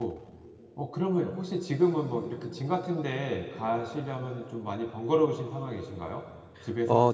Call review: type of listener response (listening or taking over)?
taking over